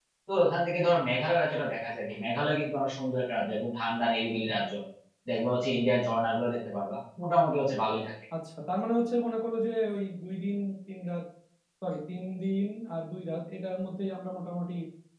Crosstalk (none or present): none